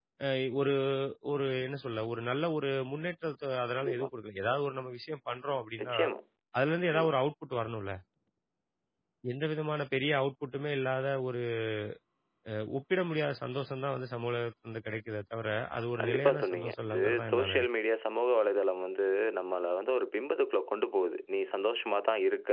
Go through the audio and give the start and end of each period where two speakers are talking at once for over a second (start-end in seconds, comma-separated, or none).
16.0-17.7